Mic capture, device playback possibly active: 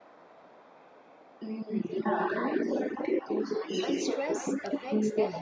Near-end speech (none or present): present